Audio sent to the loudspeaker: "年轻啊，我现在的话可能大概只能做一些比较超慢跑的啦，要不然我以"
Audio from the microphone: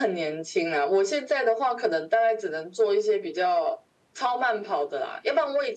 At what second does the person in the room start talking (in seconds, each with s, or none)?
none